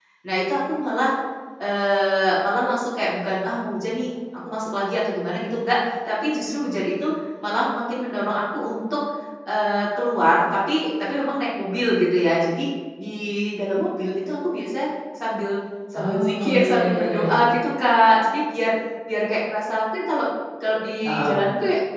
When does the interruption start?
16.0 s

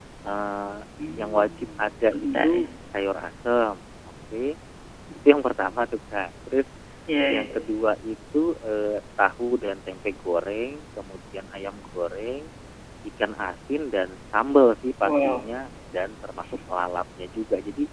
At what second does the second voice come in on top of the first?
1.2 s

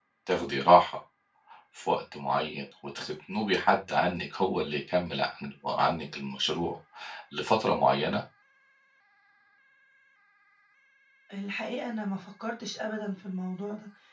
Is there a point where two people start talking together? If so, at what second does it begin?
none

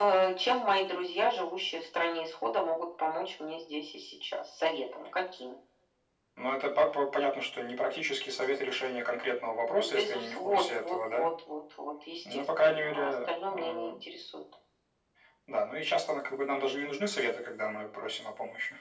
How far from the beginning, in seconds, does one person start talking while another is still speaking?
9.8 s

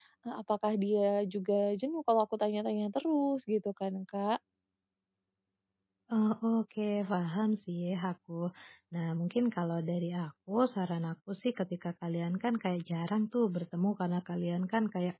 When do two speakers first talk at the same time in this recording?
none

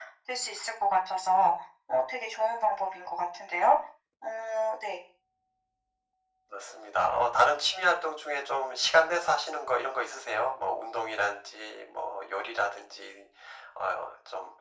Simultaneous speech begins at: none

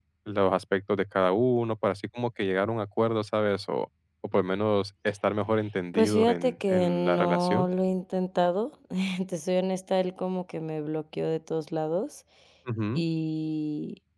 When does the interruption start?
5.9 s

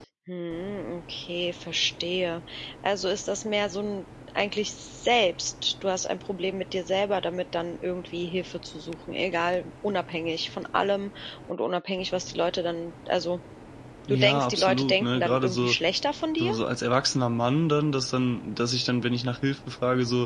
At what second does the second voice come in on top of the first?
14.1 s

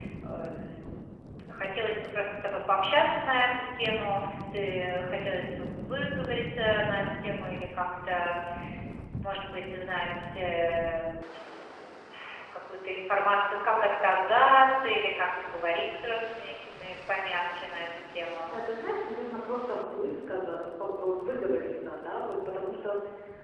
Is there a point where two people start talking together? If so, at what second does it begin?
none

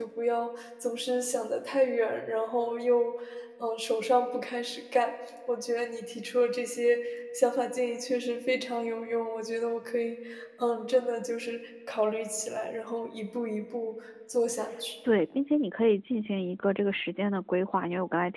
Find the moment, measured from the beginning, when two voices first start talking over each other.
none

